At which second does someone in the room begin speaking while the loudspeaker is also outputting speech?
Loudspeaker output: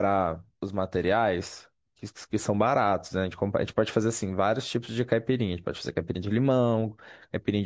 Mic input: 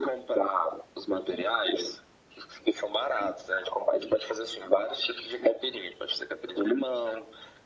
none

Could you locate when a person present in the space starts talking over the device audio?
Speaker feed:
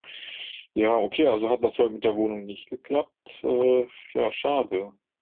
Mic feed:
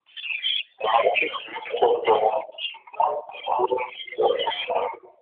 none

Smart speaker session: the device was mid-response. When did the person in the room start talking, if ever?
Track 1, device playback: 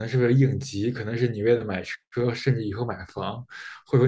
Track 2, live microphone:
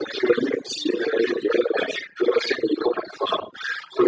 none

